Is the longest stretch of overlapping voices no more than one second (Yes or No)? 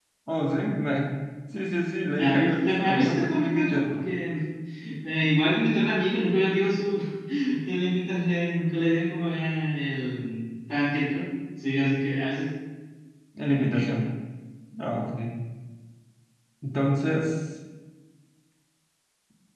No